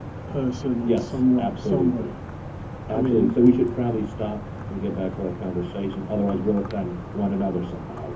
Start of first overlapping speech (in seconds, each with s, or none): 0.8 s